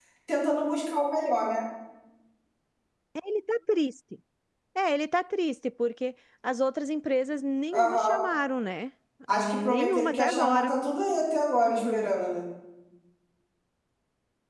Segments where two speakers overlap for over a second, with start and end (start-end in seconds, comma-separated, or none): 9.3-10.7